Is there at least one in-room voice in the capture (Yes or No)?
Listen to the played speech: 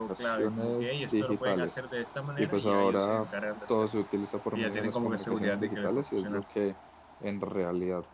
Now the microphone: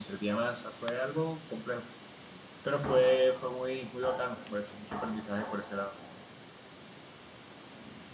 Yes